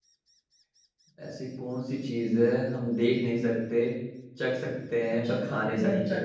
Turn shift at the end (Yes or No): Yes